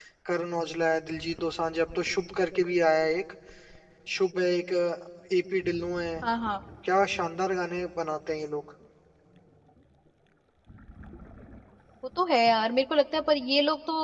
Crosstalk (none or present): none